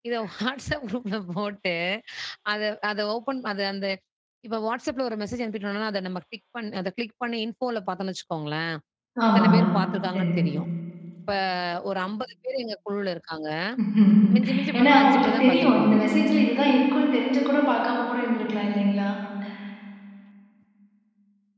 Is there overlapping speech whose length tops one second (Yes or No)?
Yes